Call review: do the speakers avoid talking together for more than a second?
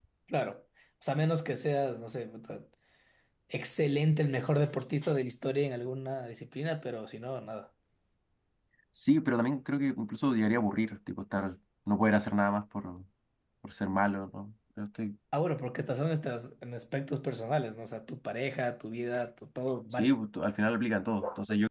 Yes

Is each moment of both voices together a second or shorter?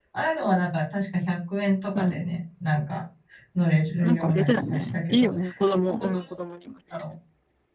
No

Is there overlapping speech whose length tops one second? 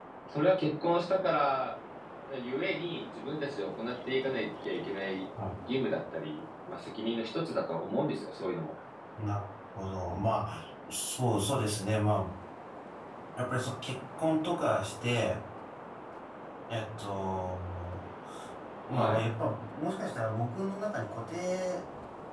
No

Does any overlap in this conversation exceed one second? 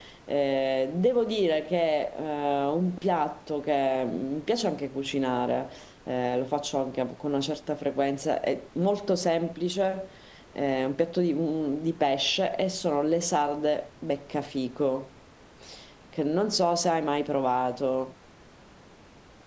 No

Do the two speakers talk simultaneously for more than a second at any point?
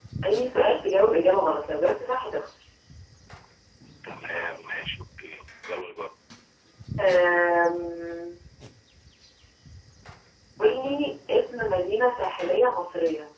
No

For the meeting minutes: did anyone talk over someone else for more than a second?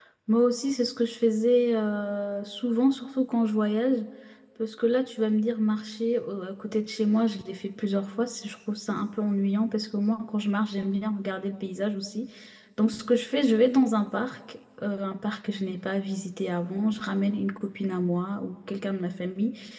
No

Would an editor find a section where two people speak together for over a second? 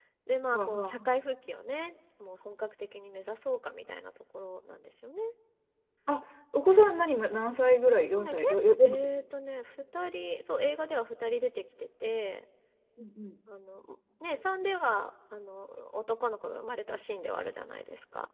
No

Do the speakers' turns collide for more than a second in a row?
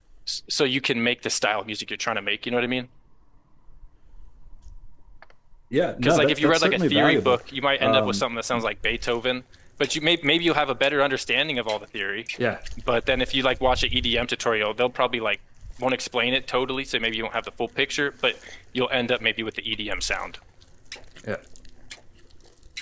Yes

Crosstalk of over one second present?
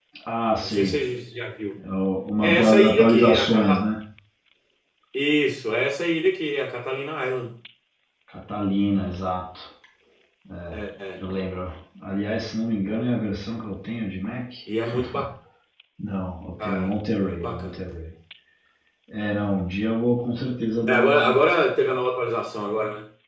Yes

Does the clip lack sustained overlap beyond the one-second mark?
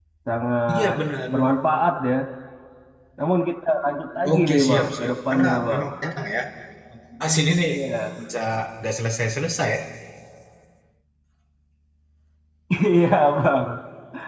No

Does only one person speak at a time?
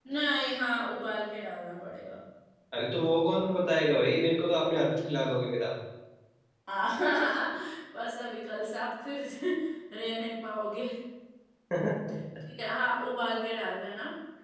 Yes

